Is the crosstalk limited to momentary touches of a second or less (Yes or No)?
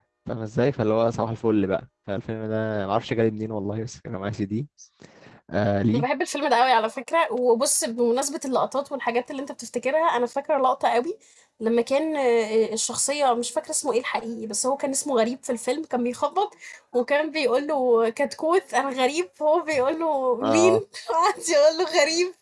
Yes